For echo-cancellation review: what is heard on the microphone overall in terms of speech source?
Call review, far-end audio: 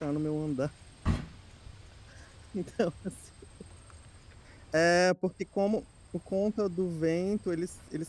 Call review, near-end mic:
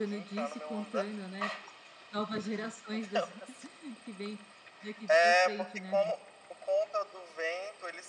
both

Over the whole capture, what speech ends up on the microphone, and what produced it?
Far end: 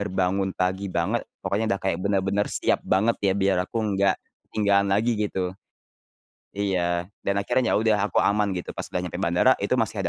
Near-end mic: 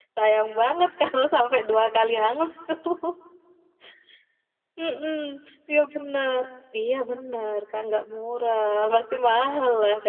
user only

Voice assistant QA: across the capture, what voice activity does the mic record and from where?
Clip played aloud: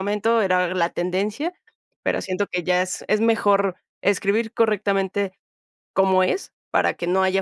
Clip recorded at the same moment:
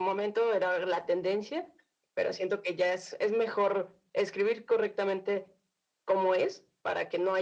echo only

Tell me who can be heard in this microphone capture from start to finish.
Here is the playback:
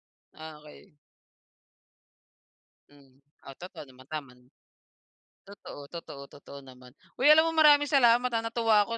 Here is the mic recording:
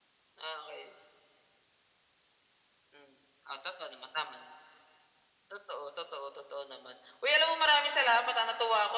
echo only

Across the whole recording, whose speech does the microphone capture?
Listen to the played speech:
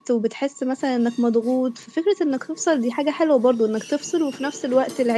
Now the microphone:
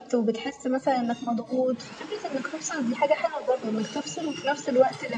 echo only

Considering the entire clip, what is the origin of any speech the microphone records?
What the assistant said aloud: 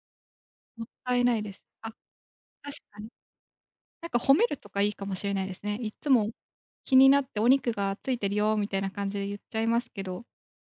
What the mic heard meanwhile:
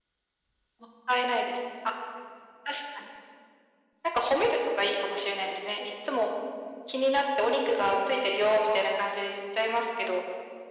echo only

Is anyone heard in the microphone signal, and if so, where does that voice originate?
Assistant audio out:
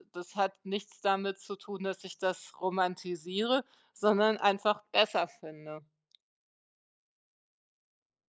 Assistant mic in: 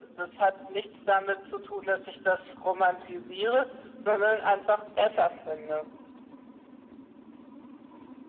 echo only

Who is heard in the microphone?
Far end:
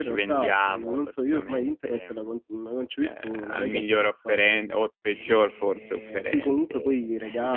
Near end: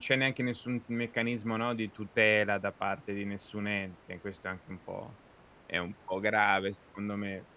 user only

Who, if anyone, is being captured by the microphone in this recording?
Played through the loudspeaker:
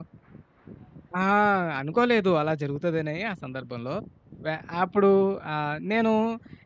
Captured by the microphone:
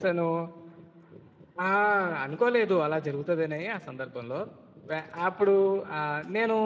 echo only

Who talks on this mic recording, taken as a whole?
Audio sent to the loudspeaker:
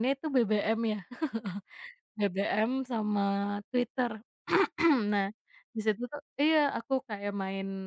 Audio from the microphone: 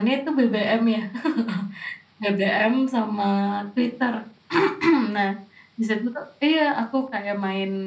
echo only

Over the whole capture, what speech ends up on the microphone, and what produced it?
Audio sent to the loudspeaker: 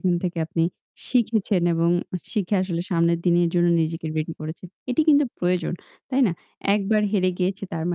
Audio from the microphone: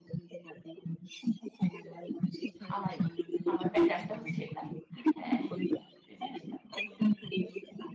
both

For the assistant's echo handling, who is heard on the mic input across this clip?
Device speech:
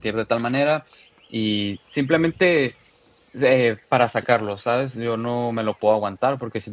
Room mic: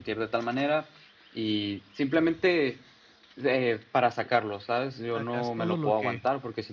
both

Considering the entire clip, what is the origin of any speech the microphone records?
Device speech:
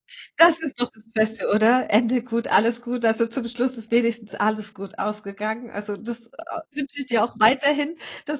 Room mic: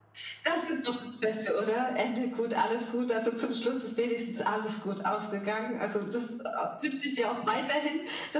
echo only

